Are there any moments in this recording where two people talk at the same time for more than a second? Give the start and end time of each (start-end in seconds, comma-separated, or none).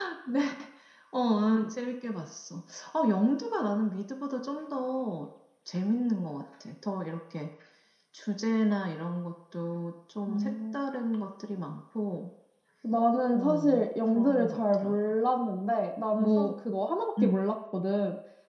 13.3-14.9